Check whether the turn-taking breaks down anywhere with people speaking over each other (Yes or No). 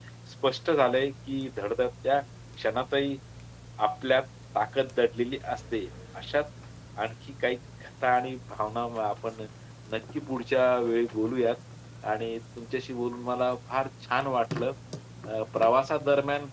No